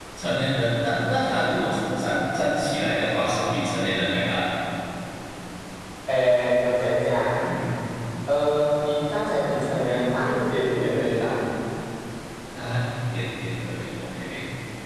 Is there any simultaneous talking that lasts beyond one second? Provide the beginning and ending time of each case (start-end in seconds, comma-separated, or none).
none